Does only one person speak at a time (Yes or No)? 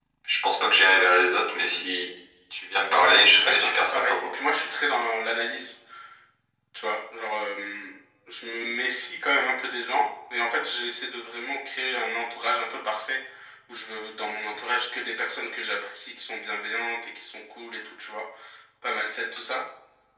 No